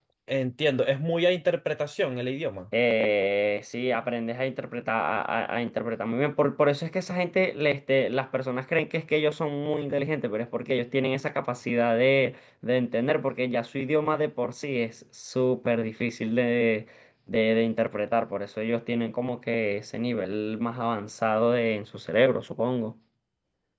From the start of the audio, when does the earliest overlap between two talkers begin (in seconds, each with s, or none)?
none